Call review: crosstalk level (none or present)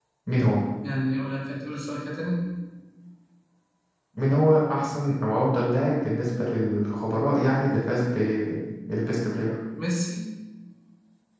none